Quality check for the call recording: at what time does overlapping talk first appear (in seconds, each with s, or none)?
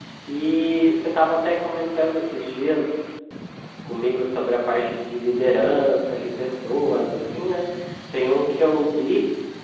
none